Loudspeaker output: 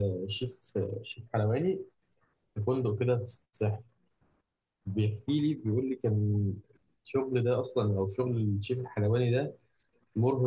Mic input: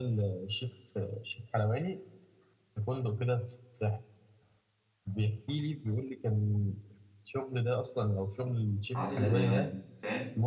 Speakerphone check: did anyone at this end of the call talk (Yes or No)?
Yes